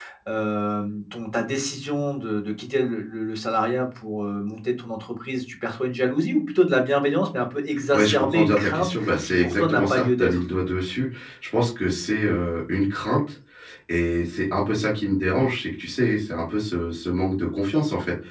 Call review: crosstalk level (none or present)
present